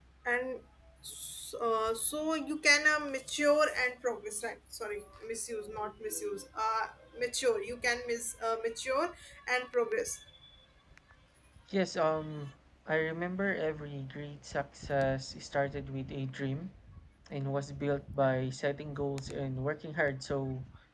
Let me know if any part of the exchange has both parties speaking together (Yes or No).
No